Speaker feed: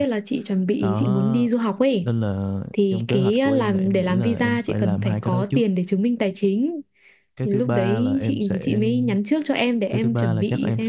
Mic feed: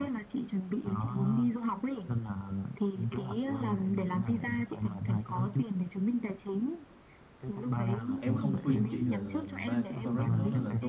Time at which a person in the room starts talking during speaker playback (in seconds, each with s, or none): 8.2 s